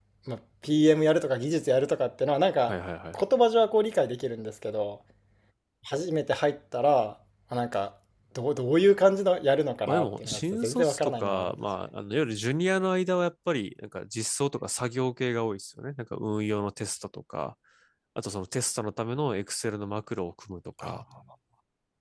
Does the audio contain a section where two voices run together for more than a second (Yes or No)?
Yes